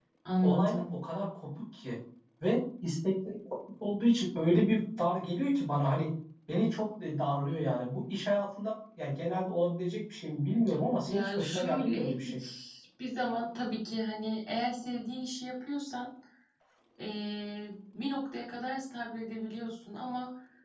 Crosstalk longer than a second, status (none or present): present